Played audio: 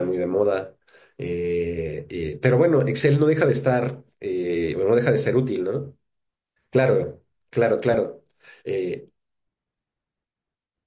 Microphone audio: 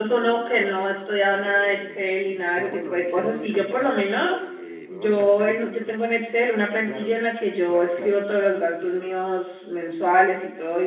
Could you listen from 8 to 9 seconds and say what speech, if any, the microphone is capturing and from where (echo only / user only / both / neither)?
both